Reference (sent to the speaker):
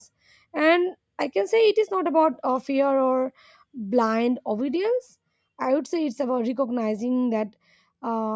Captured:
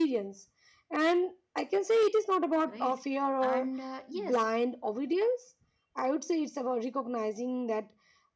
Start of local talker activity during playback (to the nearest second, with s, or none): 3 s